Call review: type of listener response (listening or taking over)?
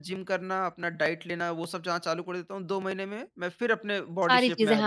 taking over